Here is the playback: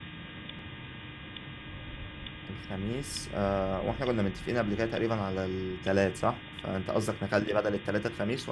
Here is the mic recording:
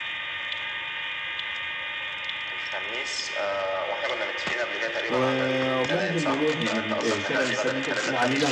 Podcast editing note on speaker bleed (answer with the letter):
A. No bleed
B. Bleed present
B